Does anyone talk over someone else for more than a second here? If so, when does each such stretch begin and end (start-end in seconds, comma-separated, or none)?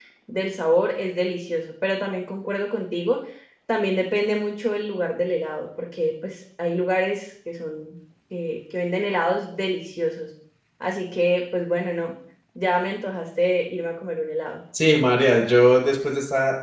none